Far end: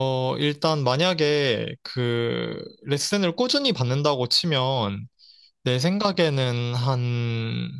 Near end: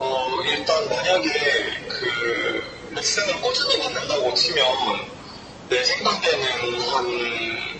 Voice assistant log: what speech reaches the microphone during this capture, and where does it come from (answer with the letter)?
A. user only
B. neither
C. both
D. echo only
D